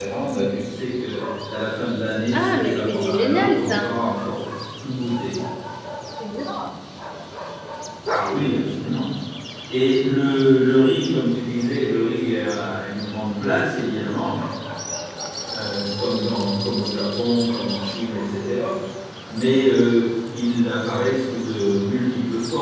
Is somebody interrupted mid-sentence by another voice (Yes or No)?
Yes